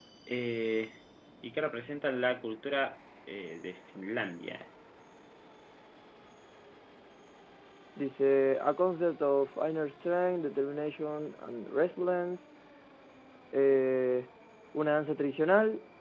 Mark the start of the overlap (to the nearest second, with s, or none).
none